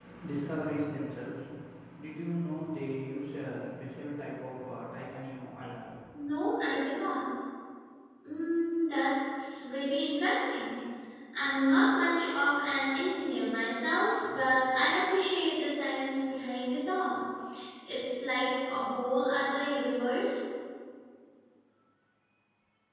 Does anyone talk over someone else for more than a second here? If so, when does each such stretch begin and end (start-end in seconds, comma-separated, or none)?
none